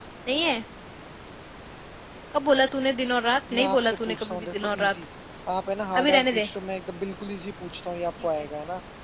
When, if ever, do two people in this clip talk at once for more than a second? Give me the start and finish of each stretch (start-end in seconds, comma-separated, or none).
3.5-4.9